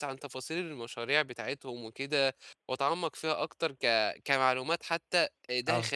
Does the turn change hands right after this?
No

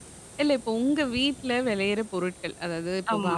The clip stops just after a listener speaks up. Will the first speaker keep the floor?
Yes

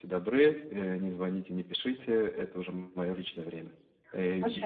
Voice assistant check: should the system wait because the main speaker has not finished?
Yes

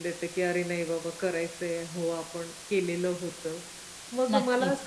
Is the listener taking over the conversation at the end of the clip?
No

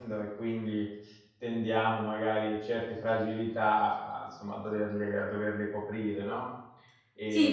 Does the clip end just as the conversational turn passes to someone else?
Yes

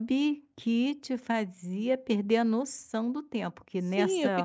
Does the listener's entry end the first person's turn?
Yes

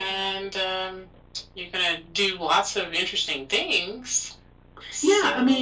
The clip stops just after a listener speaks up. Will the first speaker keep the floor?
No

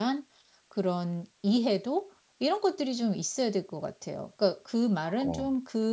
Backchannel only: Yes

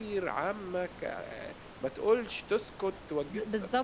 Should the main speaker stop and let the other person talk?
Yes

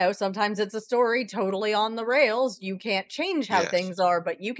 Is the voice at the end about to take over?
No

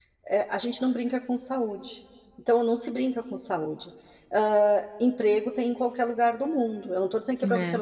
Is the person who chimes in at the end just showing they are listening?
Yes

